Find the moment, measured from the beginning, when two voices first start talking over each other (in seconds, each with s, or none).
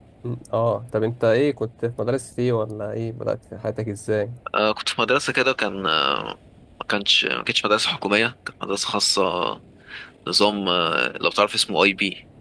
none